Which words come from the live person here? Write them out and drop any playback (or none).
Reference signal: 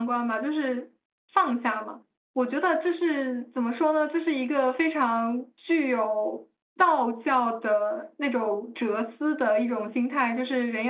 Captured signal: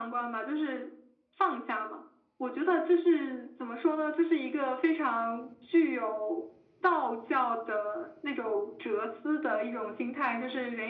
none